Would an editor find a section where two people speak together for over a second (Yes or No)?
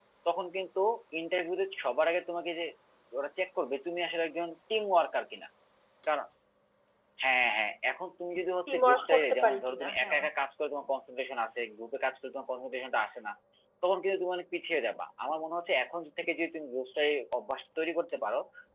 Yes